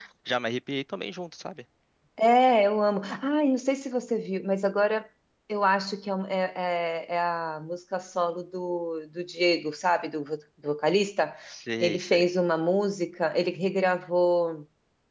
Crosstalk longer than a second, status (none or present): none